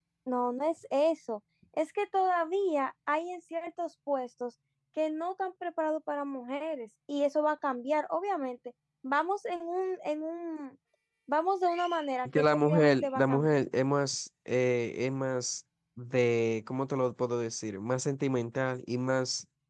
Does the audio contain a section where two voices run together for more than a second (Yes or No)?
Yes